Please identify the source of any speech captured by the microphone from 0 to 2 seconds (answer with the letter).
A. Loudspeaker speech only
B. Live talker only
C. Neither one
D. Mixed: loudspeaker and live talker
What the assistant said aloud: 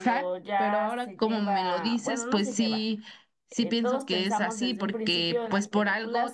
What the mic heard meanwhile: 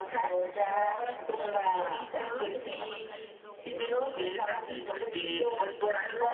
D